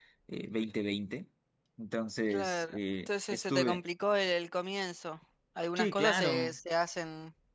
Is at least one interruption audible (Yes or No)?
Yes